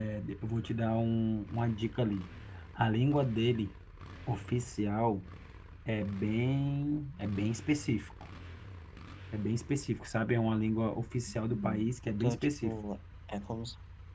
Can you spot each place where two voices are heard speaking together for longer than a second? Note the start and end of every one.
11.3-12.8

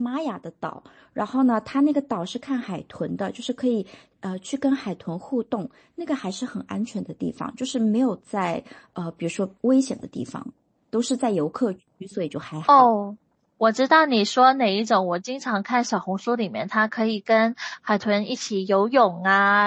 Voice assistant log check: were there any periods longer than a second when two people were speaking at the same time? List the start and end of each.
none

